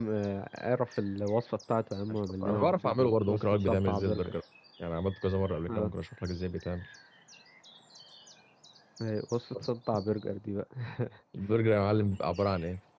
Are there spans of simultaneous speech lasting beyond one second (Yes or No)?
Yes